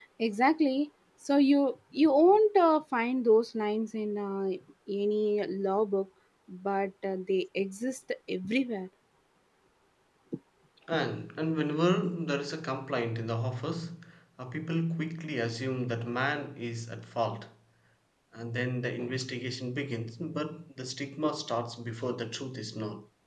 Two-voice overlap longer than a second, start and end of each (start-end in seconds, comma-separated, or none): none